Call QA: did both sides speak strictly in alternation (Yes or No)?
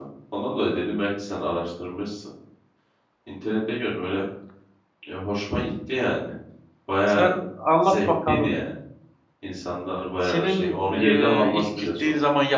No